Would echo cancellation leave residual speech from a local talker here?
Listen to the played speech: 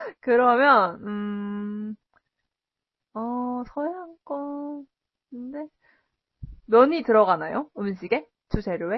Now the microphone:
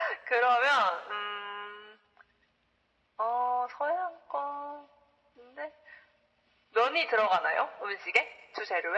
No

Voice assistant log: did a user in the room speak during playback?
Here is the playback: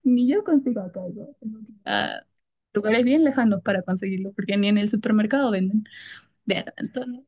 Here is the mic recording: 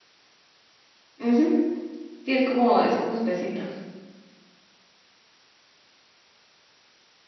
Yes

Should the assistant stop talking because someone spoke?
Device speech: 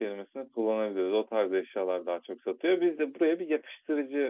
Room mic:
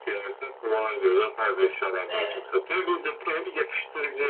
Yes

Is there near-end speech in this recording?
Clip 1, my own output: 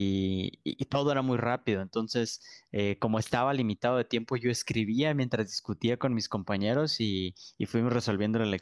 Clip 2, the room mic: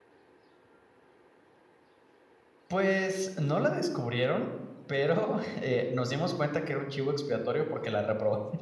Yes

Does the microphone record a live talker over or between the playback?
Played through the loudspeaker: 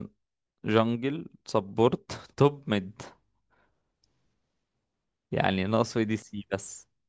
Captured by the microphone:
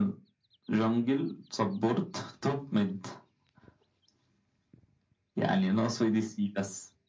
No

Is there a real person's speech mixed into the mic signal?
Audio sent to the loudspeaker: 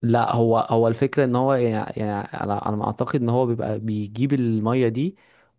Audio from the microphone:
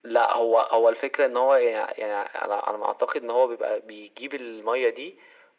No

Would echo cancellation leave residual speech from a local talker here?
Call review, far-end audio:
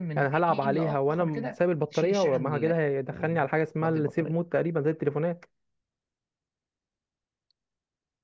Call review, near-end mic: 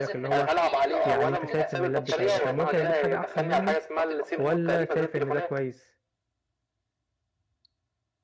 Yes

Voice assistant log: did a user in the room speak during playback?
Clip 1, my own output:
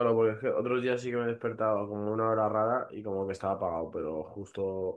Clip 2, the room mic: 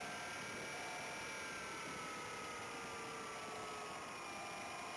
No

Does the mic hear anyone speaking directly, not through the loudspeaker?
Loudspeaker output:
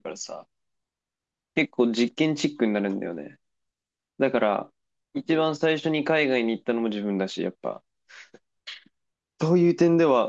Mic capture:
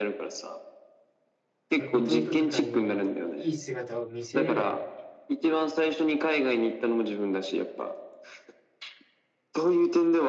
Yes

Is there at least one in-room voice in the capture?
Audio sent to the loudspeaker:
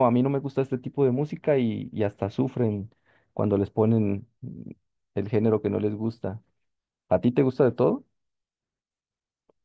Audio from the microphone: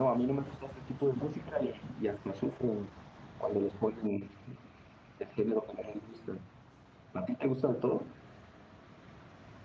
No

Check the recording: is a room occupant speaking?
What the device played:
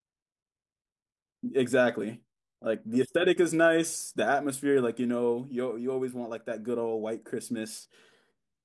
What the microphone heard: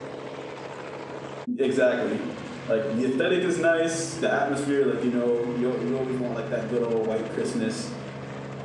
No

